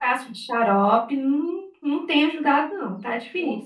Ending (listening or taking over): taking over